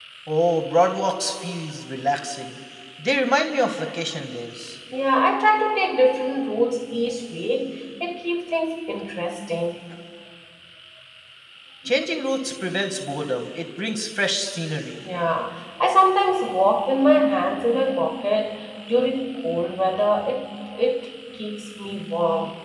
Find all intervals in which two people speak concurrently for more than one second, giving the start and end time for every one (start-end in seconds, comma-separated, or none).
none